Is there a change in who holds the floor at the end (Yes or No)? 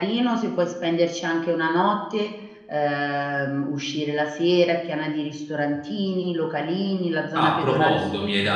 Yes